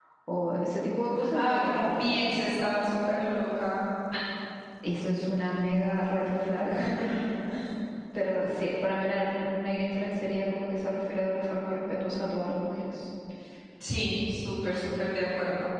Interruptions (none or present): present